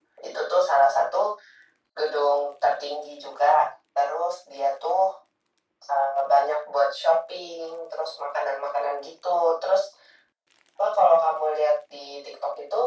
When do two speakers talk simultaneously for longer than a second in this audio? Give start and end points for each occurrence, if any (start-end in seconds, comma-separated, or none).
none